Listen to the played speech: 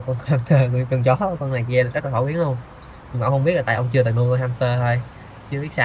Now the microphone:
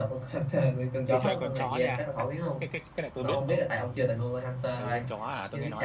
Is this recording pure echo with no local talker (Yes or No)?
No